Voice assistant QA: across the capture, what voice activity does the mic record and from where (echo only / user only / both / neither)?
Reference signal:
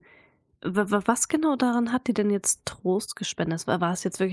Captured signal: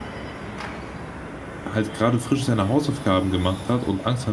user only